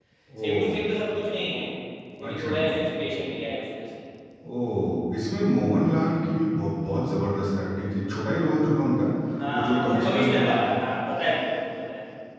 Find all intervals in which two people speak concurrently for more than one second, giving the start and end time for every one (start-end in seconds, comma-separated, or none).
9.5-10.8